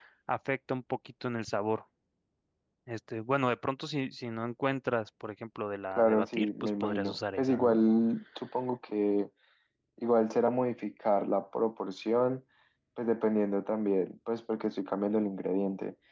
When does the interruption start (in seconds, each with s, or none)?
5.9 s